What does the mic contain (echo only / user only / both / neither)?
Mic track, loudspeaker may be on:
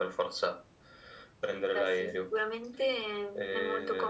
echo only